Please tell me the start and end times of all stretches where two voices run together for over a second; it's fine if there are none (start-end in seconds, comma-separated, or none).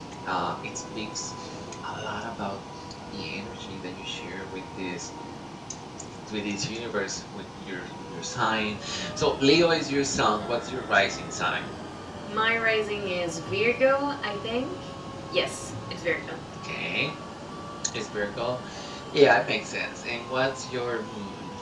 none